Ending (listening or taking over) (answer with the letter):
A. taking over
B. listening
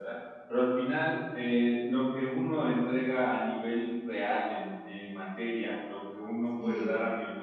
B